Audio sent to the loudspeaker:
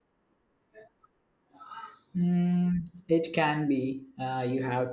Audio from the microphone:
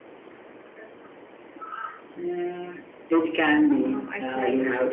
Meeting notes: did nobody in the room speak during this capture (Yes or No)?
No